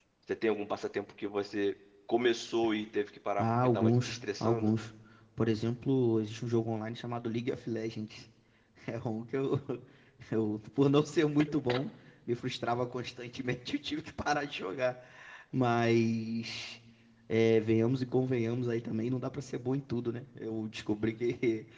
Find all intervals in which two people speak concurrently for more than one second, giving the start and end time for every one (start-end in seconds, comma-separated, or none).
3.4-4.7